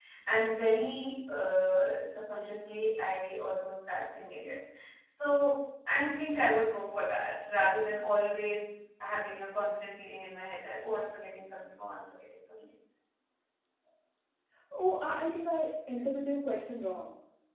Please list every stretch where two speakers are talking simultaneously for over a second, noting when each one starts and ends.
none

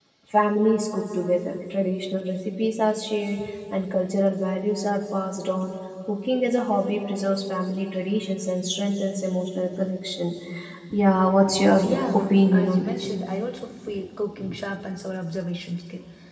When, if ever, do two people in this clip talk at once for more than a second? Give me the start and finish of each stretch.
11.8-13.1

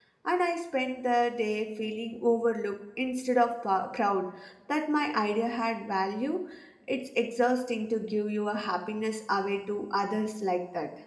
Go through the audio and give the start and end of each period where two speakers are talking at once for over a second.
none

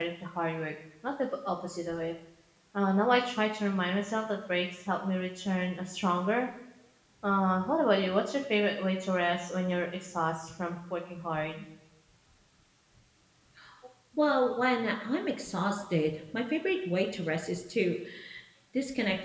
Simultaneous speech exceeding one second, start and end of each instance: none

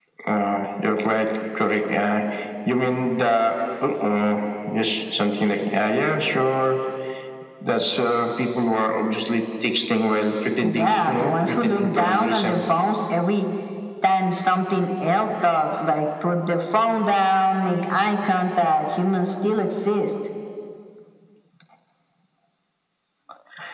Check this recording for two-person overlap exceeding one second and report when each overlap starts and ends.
10.8-12.6

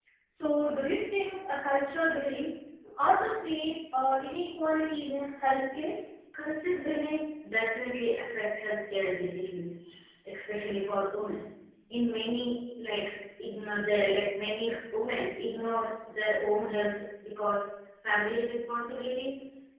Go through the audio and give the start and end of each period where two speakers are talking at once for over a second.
none

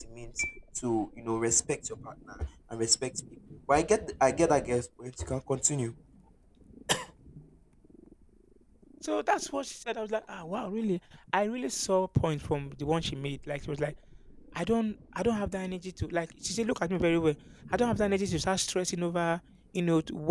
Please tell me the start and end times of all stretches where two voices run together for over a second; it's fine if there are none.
none

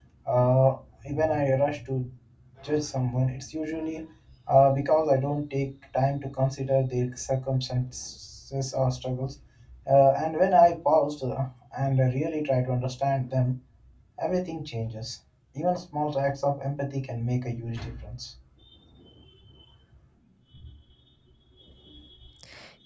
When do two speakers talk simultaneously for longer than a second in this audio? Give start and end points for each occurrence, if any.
none

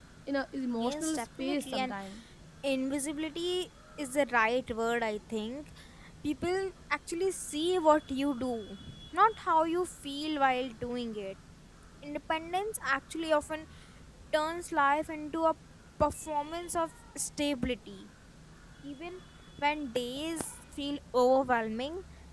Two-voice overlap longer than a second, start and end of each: 0.7-1.9

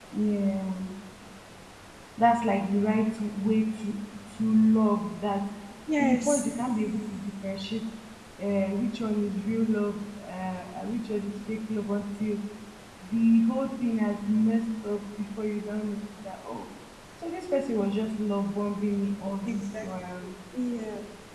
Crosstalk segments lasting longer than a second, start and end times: none

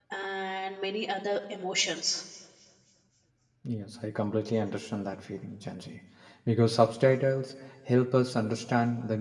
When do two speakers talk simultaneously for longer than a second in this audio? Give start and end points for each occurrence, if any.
none

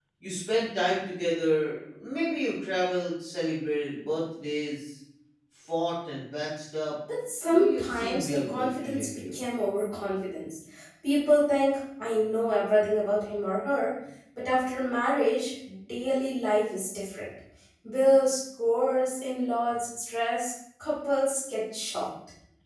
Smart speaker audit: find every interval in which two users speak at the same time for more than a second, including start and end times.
7.7-9.3

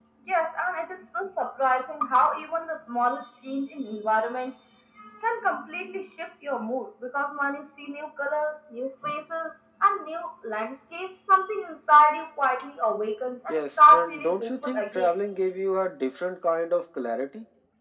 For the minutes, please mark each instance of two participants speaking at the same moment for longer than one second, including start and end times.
13.5-15.1

